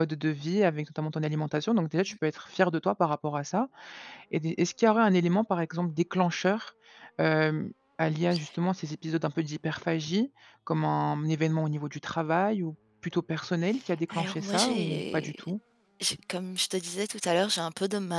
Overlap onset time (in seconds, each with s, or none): 14.1 s